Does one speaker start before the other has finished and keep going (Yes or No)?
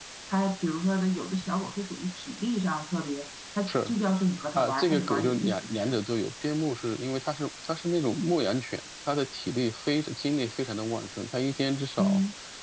Yes